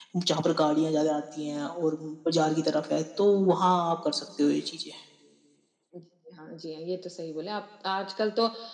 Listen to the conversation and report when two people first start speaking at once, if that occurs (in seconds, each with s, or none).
none